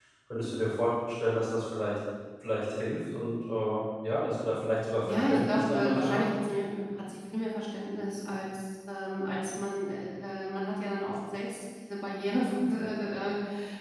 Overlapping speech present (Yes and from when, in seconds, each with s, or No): Yes, from 5.0 s